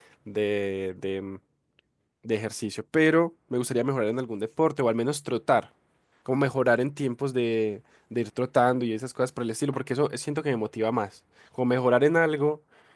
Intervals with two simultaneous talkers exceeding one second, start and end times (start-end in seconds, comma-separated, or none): none